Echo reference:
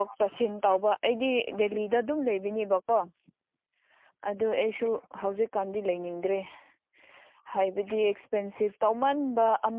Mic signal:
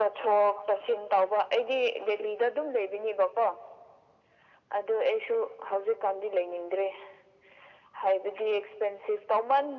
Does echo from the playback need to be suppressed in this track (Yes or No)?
Yes